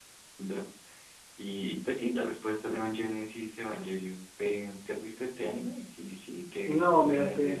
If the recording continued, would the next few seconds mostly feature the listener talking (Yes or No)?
Yes